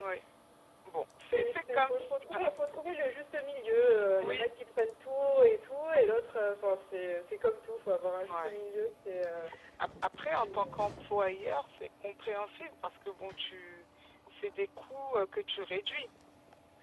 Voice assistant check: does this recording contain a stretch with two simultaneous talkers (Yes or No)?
Yes